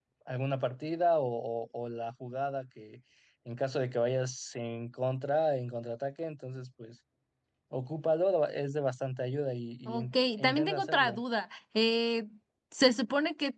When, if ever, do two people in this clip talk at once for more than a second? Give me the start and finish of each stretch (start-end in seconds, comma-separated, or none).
9.9-11.2